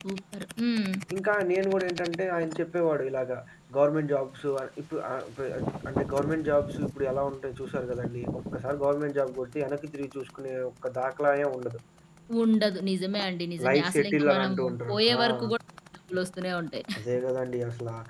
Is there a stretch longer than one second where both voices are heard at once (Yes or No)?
Yes